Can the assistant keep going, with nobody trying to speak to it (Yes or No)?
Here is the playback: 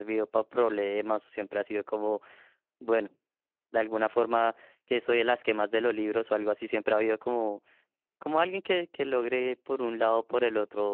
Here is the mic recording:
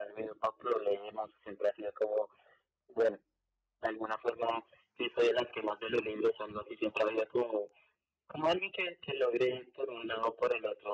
Yes